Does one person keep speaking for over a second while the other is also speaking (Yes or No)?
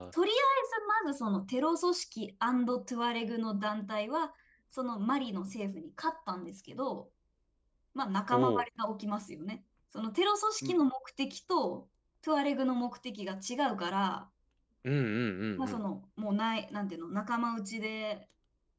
No